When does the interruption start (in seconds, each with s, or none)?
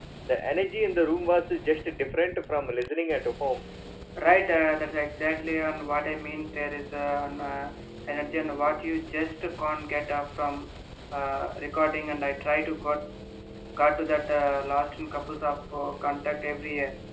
none